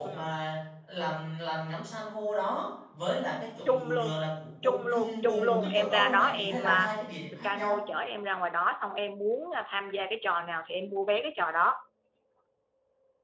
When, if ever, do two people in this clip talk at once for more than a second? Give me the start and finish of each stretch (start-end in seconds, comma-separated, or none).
4.6-6.9